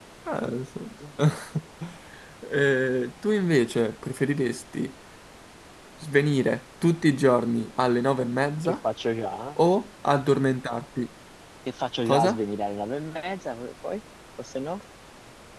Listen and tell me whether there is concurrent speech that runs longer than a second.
No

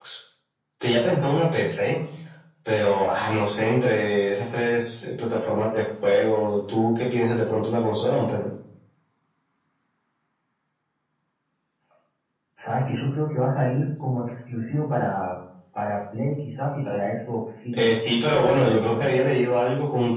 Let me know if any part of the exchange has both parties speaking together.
Yes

